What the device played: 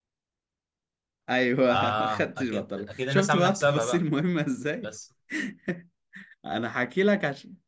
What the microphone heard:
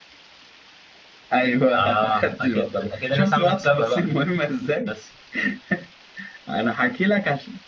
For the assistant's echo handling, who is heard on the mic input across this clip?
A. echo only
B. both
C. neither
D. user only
A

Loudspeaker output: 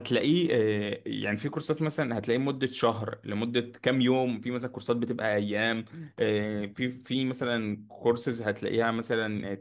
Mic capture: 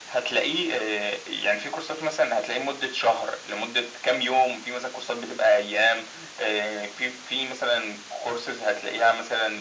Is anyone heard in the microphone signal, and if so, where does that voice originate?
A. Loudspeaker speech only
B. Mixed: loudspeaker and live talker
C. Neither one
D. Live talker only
A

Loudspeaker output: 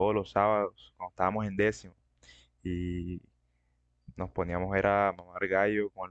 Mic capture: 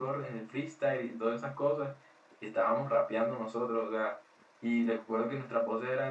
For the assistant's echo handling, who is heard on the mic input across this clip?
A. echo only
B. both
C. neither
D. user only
D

